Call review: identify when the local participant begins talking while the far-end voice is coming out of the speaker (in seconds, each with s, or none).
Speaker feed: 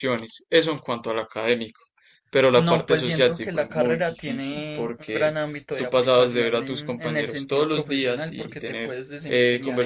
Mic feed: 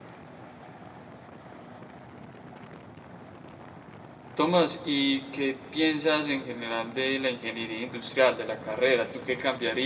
4.3 s